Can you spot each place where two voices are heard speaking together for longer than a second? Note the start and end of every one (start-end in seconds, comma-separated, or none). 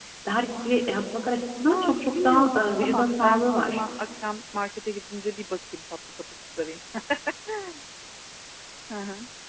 1.7-3.8